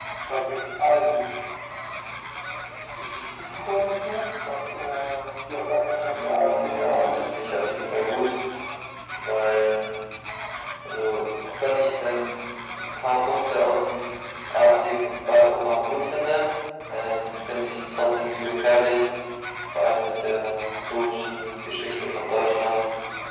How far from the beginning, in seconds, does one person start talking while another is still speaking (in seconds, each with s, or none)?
6.1 s